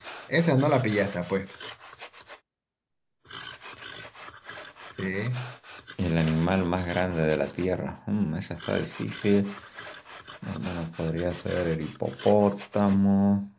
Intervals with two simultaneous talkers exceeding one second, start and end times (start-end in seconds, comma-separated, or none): none